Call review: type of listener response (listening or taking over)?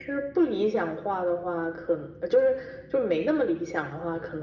listening